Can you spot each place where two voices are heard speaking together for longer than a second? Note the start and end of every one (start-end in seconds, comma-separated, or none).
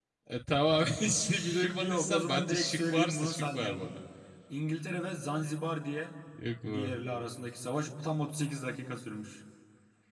1.2-4.0